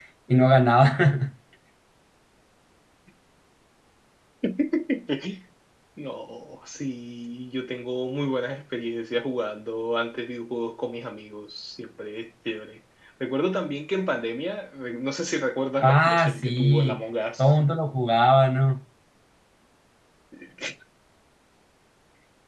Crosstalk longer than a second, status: present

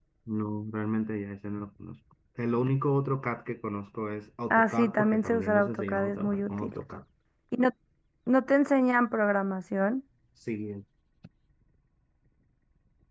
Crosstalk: present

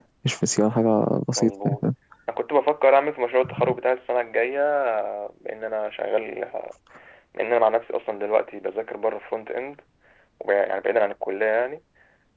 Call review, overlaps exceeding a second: none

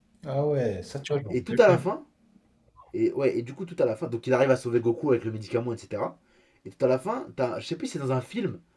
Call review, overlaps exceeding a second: none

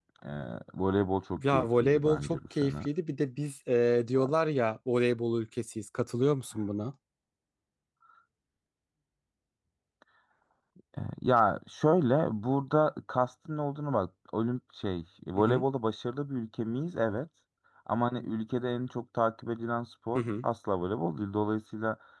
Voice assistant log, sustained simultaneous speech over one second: present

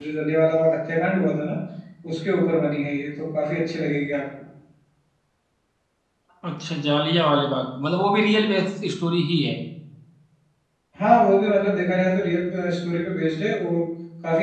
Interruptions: none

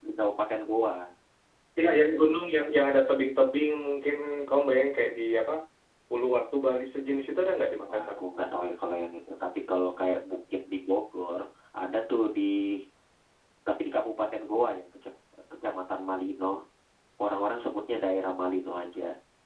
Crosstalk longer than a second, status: none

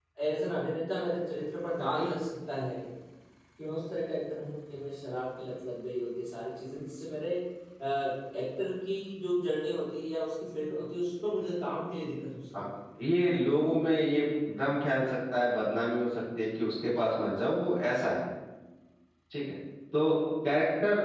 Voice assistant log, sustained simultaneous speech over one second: none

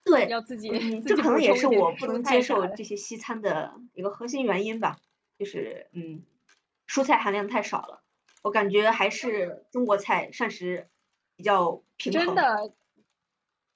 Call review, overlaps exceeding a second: present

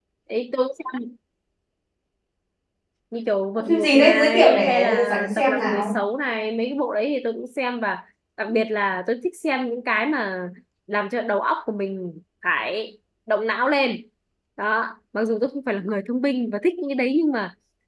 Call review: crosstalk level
present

